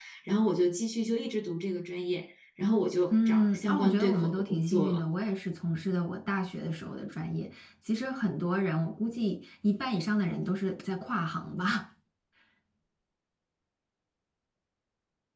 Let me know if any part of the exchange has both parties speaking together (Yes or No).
Yes